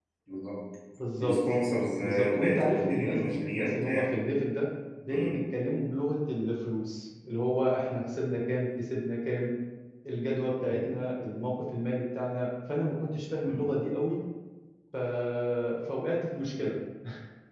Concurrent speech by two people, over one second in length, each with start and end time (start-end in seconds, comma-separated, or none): 2.0-4.1